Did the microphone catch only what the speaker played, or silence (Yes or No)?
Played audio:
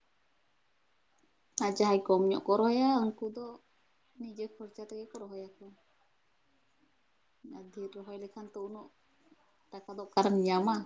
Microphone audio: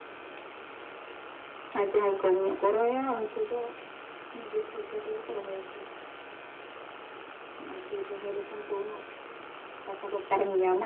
Yes